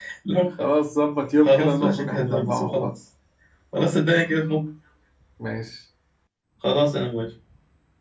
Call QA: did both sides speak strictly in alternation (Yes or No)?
No